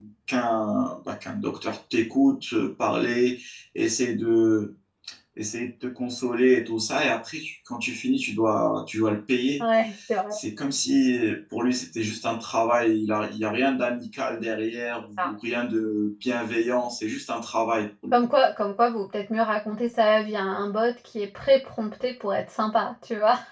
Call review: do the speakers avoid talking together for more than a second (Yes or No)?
Yes